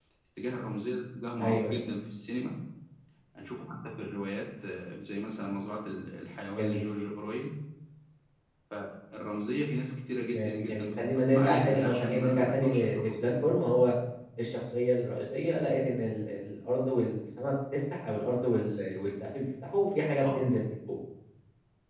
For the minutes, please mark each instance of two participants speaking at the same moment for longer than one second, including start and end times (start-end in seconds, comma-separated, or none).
10.3-13.3